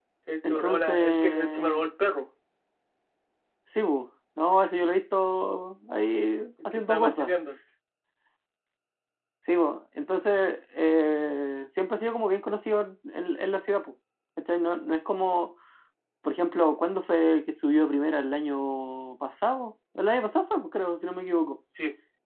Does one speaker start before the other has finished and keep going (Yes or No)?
Yes